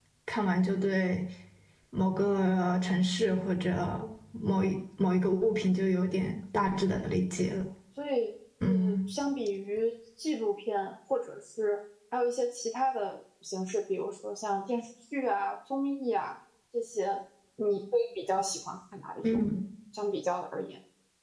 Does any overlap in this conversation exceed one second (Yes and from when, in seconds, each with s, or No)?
No